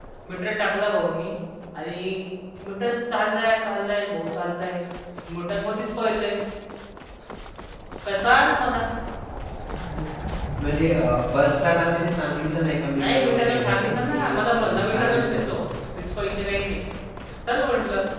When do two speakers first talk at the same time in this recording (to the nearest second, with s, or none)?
13 s